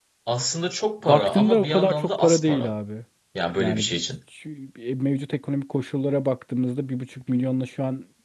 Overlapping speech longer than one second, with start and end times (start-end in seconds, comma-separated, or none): 1.0-2.7